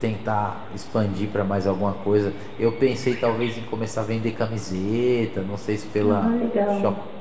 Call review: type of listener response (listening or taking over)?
listening